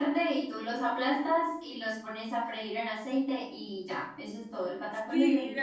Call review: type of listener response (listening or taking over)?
taking over